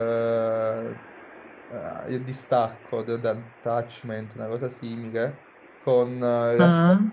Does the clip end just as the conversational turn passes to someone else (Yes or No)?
No